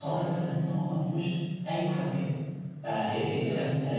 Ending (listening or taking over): listening